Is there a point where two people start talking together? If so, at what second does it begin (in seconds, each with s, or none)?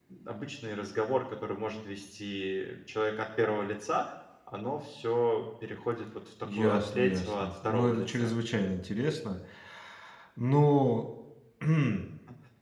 6.4 s